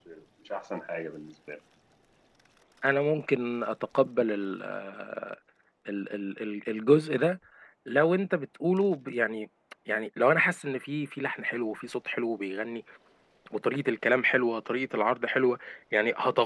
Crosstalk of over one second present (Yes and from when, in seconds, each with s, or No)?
No